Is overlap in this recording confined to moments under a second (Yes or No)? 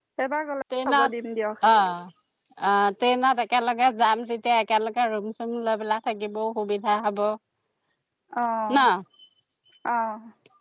Yes